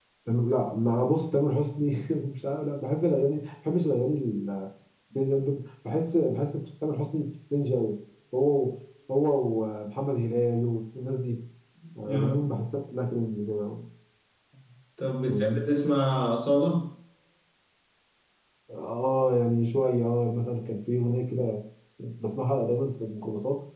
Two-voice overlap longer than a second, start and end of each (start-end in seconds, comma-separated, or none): none